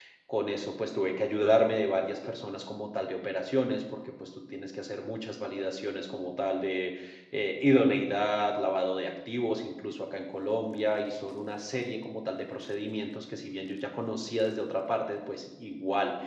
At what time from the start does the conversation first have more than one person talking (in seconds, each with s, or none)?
none